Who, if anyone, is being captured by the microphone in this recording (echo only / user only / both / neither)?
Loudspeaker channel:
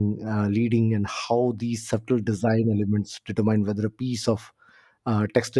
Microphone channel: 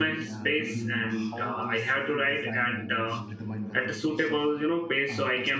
both